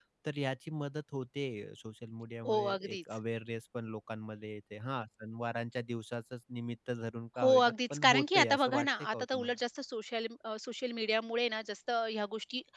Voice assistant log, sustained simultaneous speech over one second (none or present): present